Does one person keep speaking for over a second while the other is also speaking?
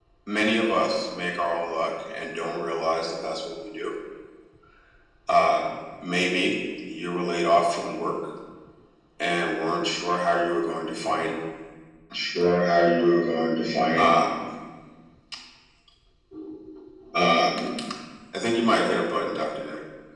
No

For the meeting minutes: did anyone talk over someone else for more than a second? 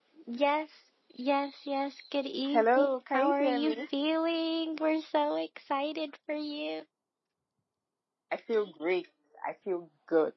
Yes, from 2.5 s

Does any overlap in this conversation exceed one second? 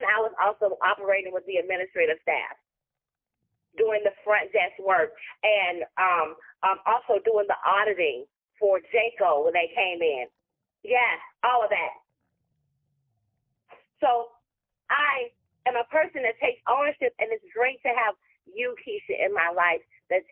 No

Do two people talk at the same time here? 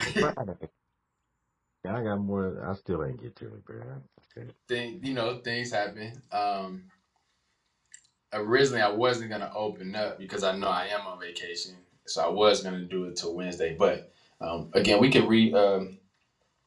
No

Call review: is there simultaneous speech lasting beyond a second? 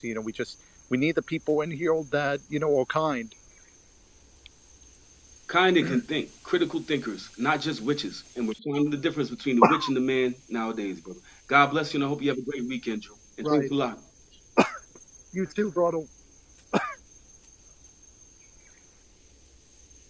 No

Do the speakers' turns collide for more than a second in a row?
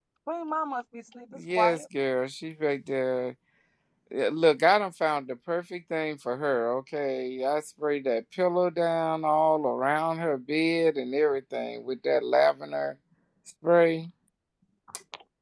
No

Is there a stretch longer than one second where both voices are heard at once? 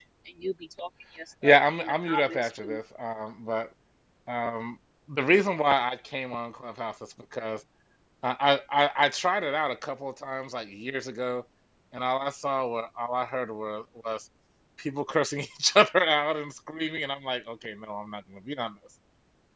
Yes, from 1.4 s

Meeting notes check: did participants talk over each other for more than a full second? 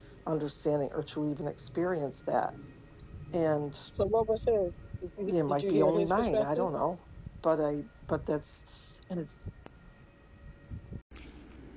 Yes, from 5.3 s

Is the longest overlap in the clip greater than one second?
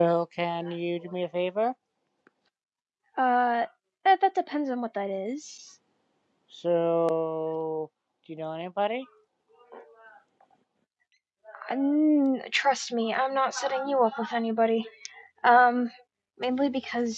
No

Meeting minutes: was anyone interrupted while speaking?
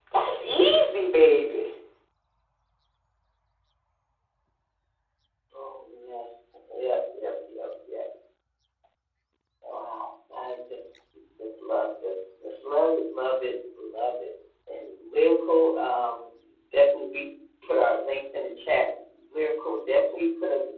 No

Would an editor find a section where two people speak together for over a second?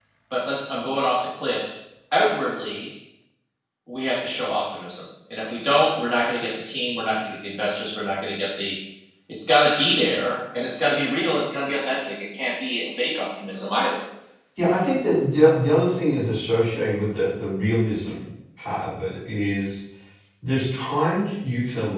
No

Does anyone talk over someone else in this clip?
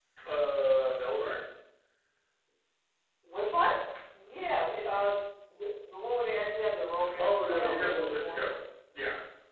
Yes, from 7.0 s

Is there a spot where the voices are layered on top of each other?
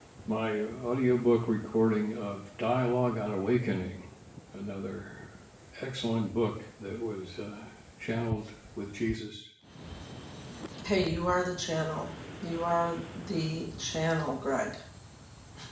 No

